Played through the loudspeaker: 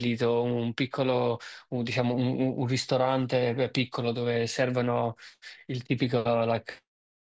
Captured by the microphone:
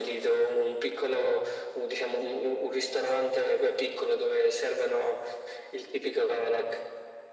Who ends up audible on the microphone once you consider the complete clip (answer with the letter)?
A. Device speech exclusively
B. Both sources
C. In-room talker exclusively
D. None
A